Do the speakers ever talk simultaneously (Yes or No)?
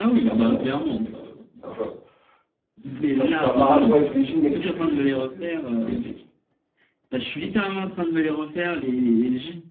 Yes